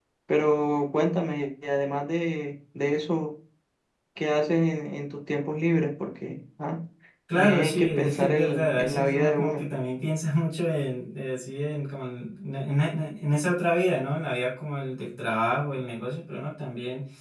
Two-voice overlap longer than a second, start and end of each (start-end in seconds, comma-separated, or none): 7.3-9.7